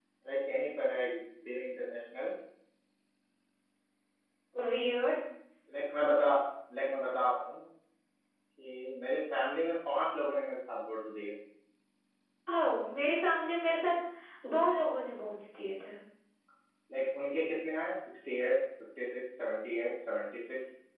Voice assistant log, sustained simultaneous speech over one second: none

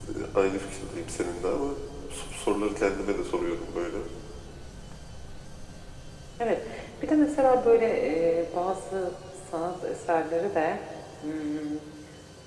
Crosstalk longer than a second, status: none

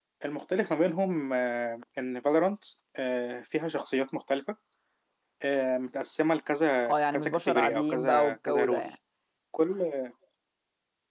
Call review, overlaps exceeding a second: present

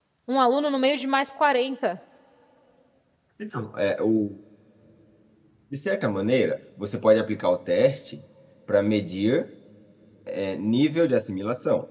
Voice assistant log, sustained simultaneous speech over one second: none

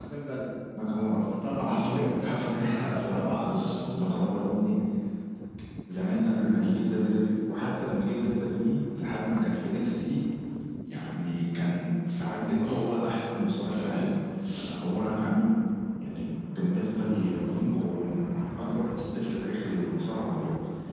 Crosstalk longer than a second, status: present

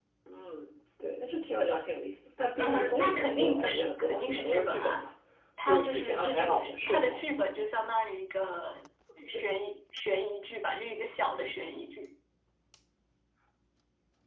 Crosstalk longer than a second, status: present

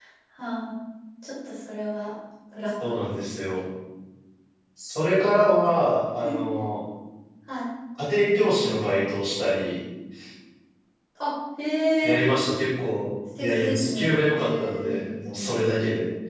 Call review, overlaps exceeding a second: present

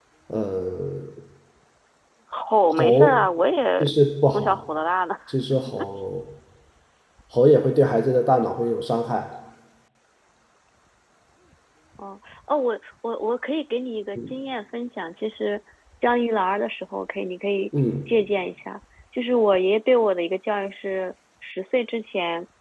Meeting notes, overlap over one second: none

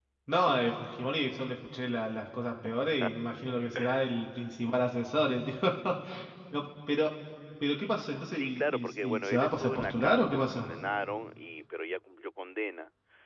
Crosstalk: present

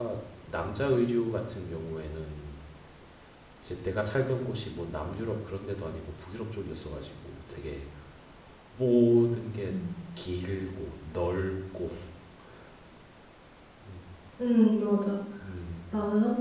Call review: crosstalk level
none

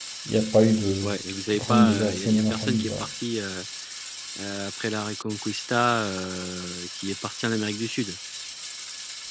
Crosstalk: present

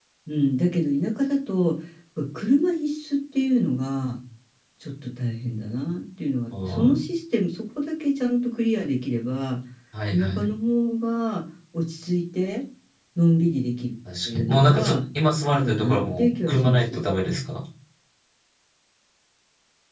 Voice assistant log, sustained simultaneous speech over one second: present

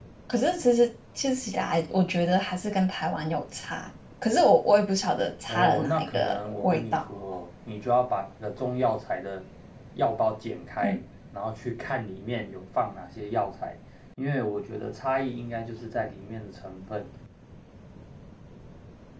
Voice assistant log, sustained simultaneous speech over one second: present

